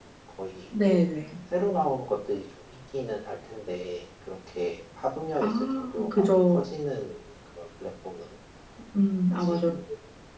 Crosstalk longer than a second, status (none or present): present